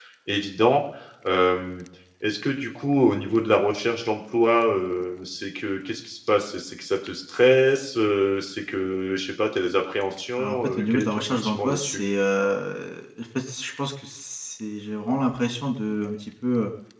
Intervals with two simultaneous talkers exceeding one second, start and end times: 10.4-12.0

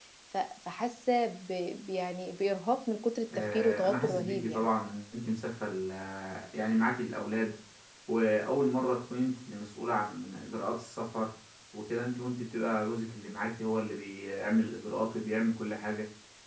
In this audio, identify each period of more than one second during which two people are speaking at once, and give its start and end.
3.4-4.7

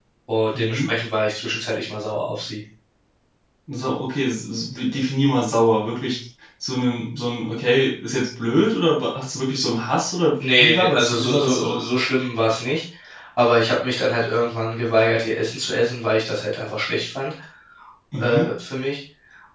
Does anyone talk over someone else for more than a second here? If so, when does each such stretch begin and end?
10.4-11.9

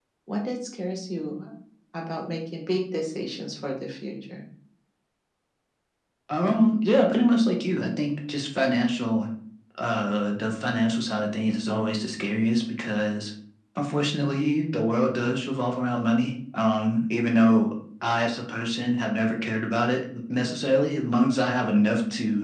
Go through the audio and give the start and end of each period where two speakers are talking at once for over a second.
none

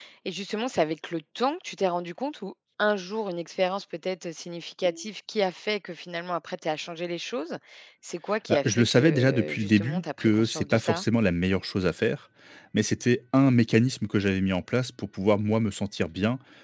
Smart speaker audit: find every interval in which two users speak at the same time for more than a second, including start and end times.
8.5-11.0

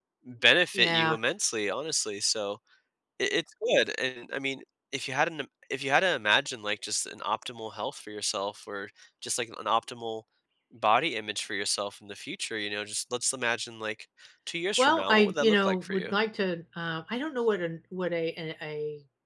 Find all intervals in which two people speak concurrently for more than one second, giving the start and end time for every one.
14.8-16.1

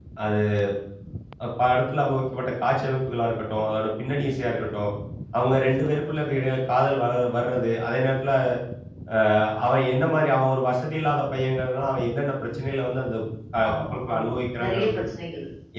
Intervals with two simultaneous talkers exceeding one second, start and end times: 13.7-15.0

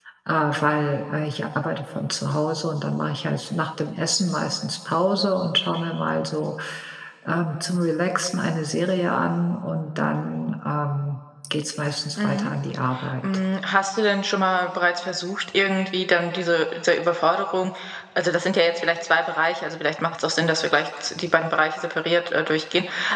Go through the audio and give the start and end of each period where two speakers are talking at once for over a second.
none

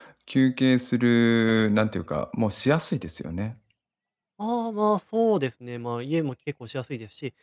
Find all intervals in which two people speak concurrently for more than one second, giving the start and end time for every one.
none

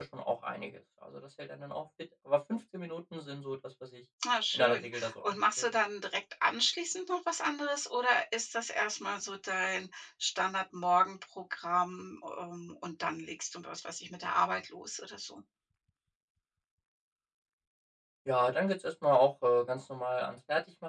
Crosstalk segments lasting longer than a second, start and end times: 4.5-5.7

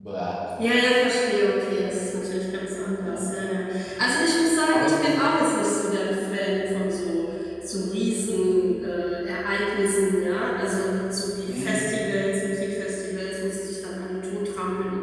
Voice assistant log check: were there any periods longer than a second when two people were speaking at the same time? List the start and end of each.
none

